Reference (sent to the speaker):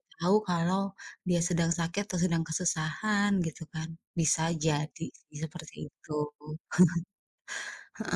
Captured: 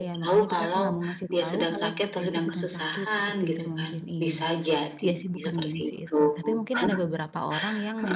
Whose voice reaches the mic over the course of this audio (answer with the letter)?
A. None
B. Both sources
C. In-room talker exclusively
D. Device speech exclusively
B